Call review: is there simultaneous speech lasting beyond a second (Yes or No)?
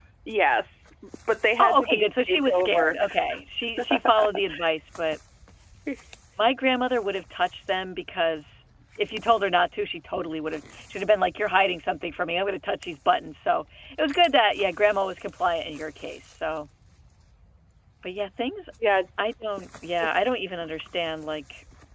Yes